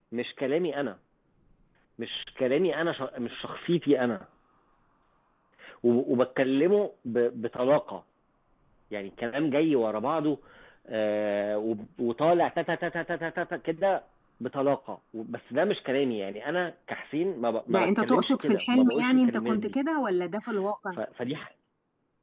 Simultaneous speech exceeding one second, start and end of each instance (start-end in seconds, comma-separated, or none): 17.7-19.7